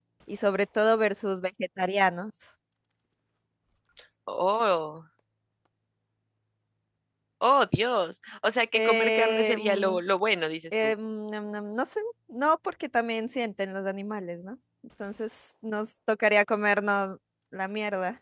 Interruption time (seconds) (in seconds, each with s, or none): 8.7 s